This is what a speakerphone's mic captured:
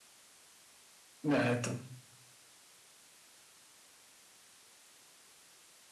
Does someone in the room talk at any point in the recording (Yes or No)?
Yes